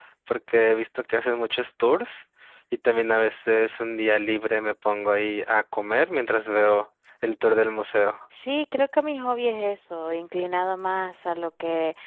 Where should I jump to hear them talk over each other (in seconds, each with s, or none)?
none